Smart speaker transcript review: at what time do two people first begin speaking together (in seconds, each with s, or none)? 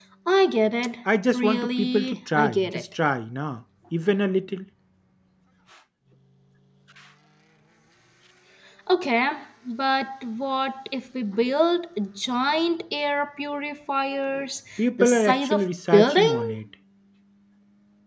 1.3 s